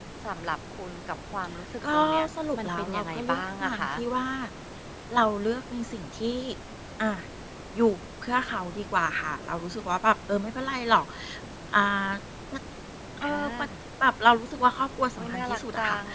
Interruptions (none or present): present